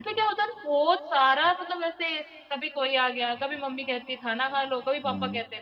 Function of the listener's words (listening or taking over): listening